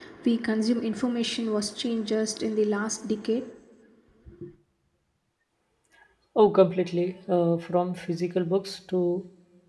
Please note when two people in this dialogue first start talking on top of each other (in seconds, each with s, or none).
none